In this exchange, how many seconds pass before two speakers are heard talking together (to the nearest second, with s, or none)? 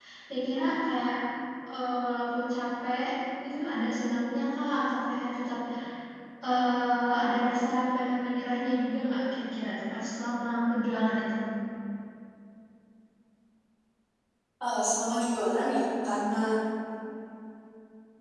none